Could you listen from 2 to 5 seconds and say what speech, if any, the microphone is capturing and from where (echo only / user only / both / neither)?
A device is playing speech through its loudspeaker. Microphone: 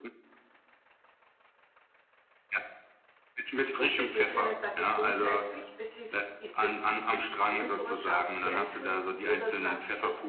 both